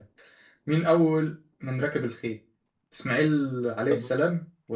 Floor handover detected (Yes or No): No